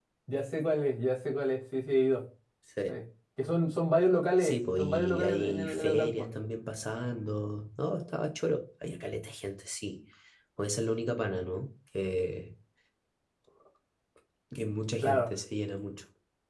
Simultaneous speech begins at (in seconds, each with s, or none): 4.4 s